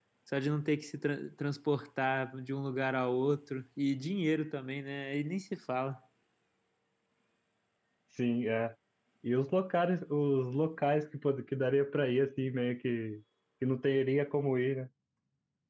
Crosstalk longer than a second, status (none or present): none